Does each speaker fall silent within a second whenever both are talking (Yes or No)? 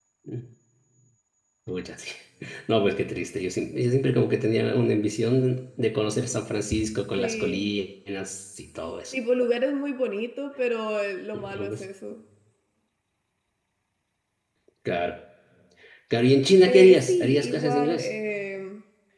No